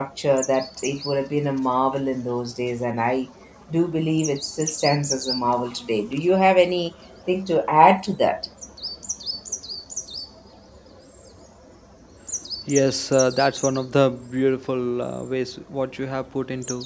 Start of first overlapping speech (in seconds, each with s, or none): none